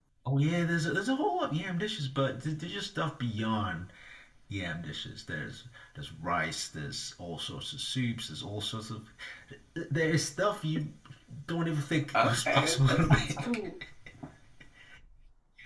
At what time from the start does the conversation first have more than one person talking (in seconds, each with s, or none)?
12.2 s